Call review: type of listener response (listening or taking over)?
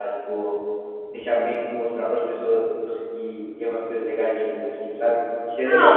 taking over